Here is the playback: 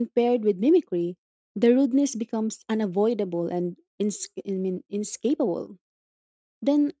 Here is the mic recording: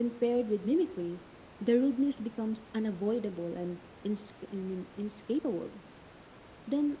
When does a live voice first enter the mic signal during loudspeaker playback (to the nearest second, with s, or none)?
none